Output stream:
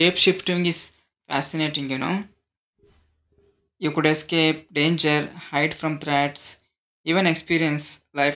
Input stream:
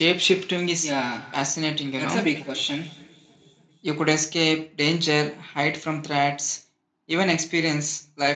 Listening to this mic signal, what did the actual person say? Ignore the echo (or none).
Yeah, that's a big question.